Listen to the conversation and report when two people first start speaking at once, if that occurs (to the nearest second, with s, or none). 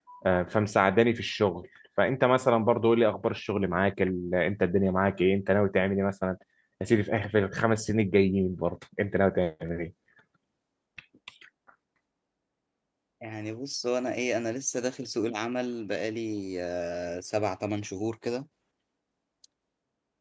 none